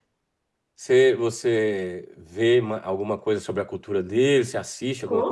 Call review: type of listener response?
taking over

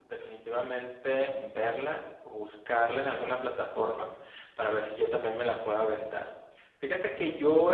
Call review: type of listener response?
listening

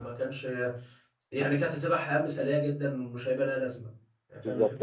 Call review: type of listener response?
taking over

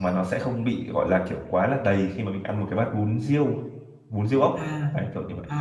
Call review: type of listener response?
taking over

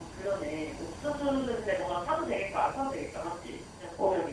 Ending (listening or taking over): taking over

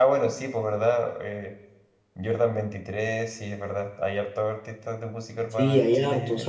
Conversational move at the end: taking over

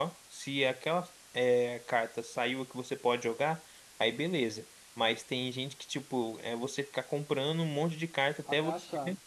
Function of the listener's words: listening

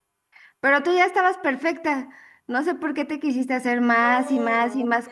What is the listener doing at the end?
taking over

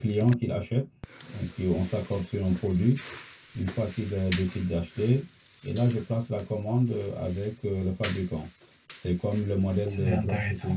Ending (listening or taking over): listening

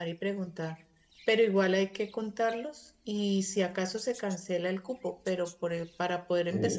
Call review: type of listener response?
listening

